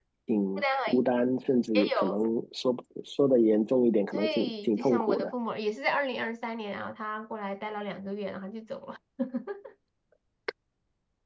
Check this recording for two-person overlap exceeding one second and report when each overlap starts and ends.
4.1-5.3

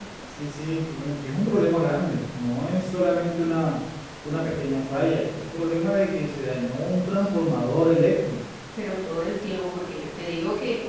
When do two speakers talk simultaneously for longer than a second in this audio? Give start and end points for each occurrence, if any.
none

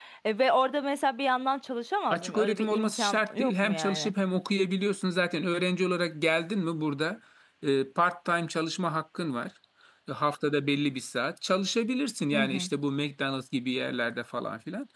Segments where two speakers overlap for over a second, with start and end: 2.1-4.1

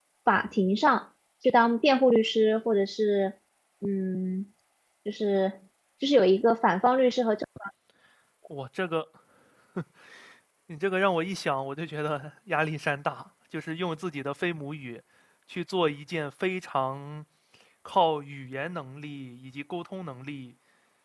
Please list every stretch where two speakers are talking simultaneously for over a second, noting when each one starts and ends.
none

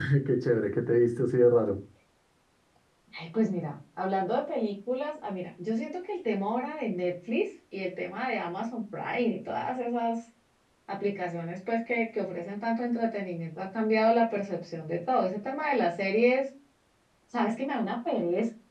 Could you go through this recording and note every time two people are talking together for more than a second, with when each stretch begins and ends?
none

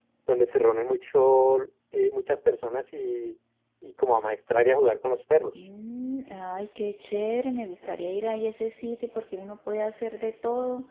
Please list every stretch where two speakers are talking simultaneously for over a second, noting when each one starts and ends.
none

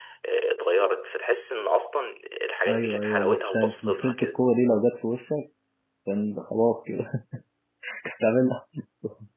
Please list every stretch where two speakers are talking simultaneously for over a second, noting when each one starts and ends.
2.7-4.4

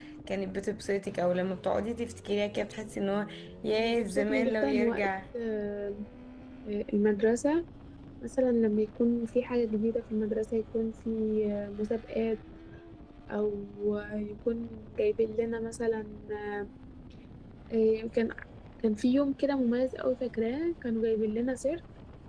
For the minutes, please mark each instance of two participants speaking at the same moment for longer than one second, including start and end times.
3.8-5.1

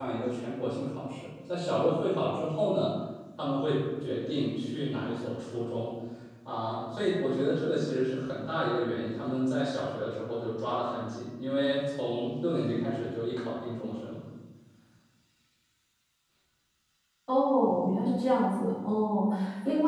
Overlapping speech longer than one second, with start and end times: none

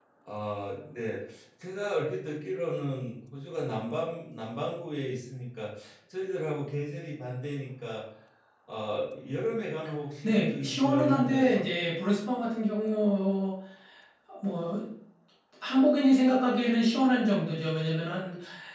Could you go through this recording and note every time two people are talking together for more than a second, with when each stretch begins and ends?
10.2-11.7

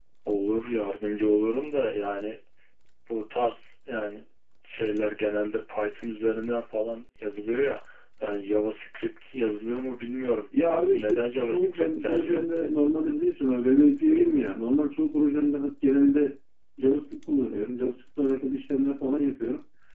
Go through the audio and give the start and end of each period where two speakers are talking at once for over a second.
10.9-12.4

